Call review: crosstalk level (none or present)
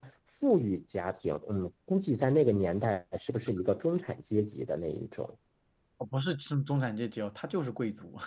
none